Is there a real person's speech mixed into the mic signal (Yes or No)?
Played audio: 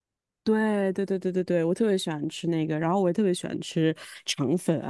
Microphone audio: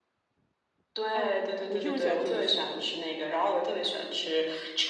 Yes